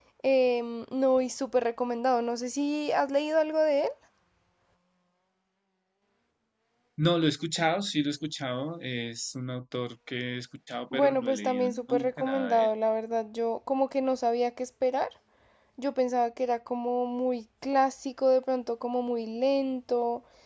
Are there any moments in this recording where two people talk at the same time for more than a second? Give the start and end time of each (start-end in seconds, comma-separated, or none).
10.9-12.7